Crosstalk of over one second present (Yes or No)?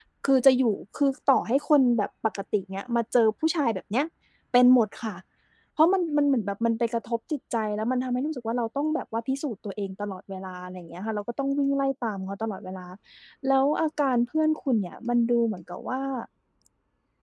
No